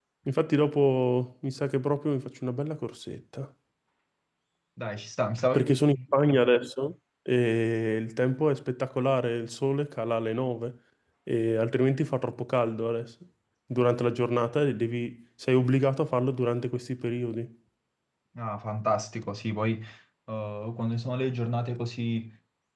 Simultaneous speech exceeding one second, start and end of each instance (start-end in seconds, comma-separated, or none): none